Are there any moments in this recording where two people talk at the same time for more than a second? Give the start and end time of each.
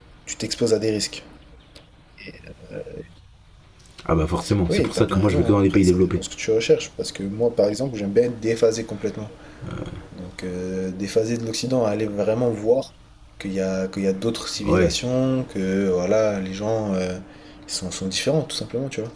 4.7-6.2

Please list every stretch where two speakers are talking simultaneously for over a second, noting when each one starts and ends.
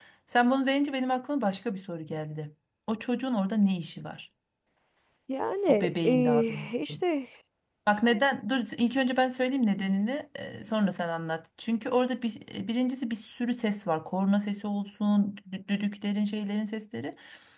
5.7-6.9

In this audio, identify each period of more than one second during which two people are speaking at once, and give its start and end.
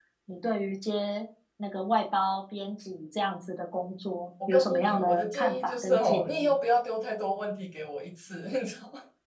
4.5-6.5

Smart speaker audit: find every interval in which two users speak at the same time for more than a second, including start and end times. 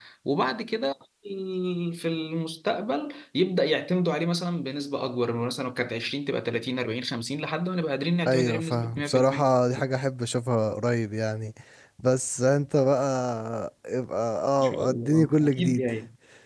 8.3-9.5, 14.6-15.9

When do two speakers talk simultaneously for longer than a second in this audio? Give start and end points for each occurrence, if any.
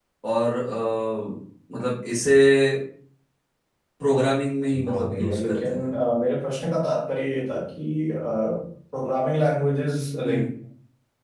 4.7-5.9

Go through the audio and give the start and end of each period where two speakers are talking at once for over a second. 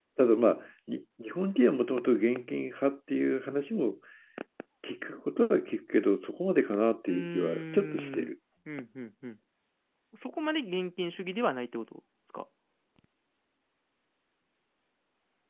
7.1-8.3

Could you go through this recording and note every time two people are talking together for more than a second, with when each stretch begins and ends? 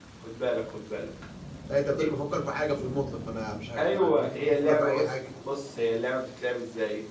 3.8-5.1

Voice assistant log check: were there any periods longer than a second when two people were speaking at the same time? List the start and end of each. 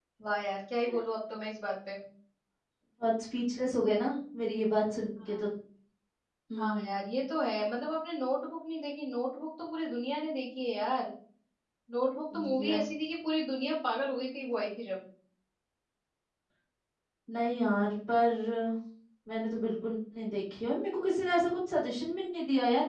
none

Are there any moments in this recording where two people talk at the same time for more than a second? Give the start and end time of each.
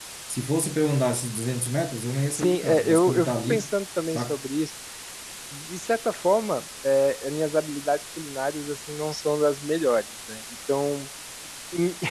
2.3-3.7

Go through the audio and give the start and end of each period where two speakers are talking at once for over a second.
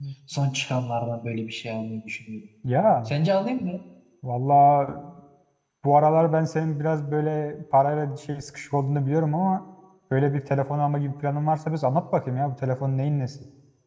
none

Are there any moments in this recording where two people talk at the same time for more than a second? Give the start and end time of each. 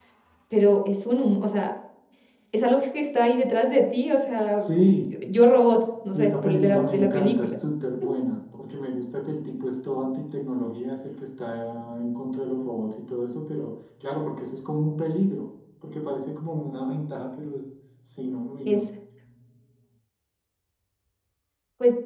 6.1-7.6

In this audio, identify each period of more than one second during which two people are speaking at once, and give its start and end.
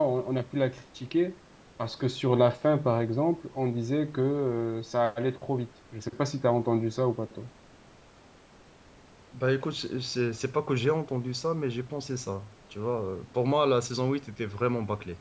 none

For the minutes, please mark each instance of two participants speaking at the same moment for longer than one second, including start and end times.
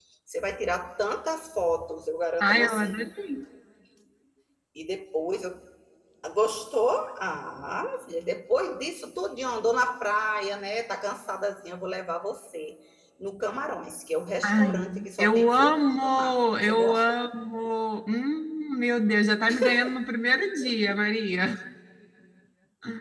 14.4-17.2

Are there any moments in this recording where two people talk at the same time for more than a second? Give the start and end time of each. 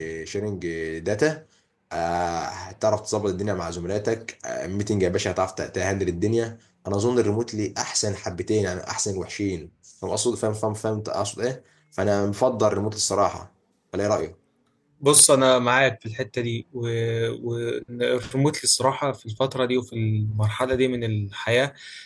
none

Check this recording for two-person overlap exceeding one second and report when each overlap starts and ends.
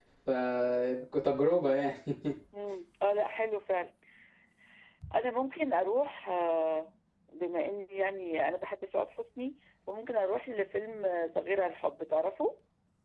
none

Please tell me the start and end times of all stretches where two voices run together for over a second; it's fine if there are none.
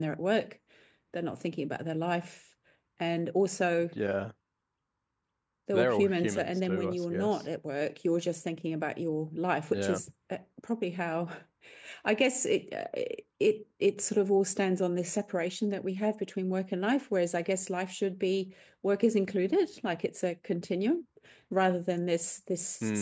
5.7-7.4

